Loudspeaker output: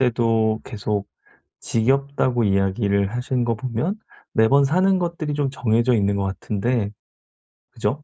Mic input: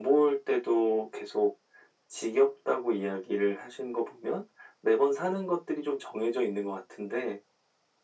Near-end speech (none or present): none